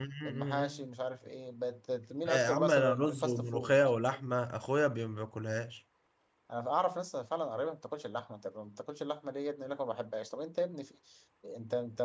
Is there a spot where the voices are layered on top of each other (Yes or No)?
Yes